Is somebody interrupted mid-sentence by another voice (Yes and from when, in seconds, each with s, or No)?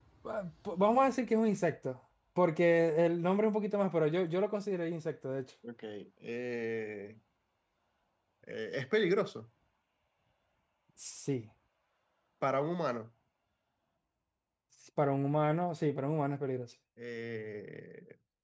No